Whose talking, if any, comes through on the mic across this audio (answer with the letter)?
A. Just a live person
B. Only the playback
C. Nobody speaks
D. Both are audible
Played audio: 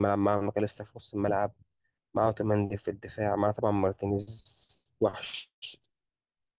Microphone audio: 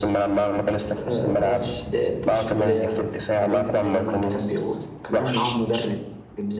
D